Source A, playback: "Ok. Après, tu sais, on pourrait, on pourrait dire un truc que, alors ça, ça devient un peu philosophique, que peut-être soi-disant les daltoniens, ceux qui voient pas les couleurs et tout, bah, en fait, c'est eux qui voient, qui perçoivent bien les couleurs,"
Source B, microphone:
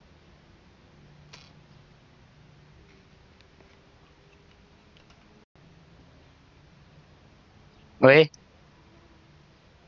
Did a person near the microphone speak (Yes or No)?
Yes